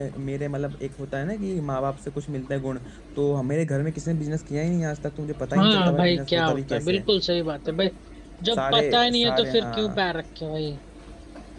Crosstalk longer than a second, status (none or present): present